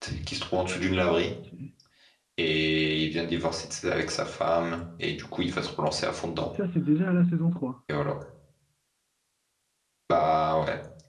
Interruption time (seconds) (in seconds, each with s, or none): none